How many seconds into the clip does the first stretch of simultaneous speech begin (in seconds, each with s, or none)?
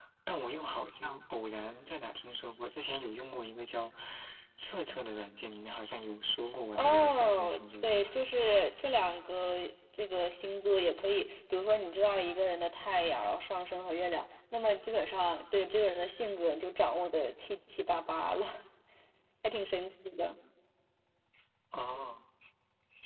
6.7 s